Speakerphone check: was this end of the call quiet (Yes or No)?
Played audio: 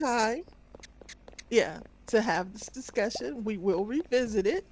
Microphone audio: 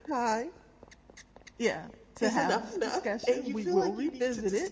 No